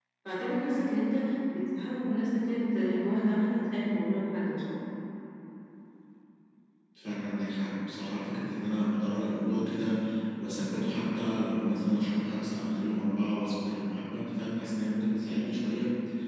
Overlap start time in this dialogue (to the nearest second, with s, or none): none